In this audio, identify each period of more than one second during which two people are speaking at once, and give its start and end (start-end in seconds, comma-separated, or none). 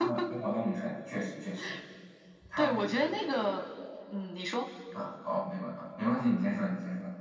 none